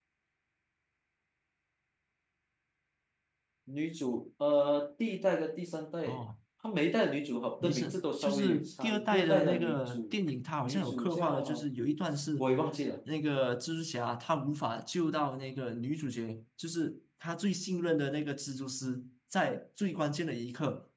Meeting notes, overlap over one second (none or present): present